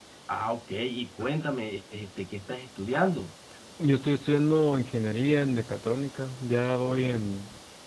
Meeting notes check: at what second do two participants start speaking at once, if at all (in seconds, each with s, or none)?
none